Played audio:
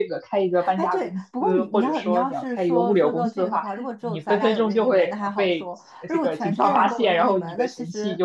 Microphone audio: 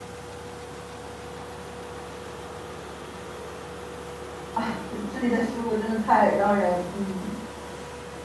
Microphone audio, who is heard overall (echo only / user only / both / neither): user only